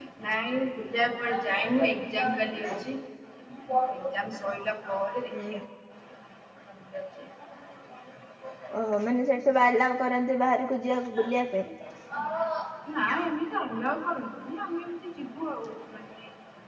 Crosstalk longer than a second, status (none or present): none